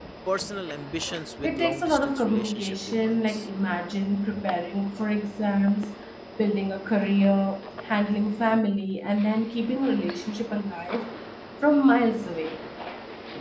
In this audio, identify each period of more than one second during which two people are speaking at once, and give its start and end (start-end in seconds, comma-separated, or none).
1.4-3.4